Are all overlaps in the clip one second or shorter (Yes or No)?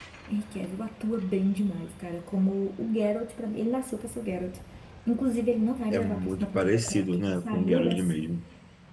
No